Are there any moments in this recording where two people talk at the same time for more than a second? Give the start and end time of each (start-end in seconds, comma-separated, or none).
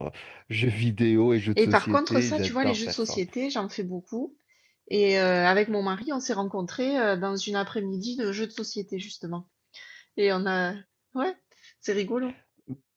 1.6-3.2